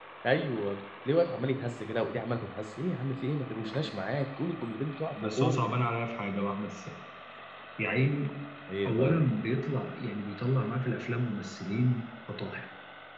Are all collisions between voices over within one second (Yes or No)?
Yes